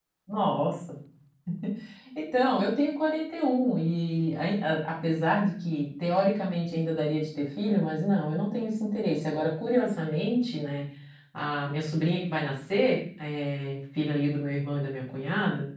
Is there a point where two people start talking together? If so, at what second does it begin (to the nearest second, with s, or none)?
none